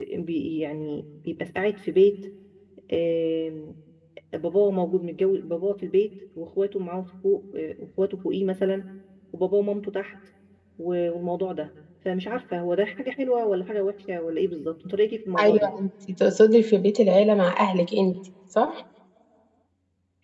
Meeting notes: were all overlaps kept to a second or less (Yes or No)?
Yes